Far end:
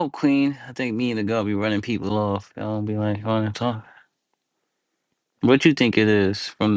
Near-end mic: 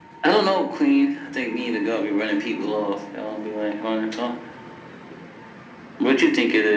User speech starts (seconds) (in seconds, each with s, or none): none